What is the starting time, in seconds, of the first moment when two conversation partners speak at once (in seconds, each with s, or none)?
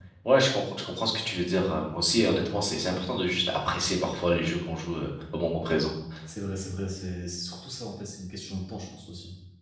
none